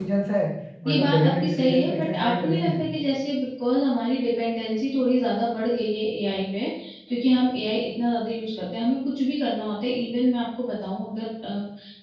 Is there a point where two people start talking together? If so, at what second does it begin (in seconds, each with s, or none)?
0.8 s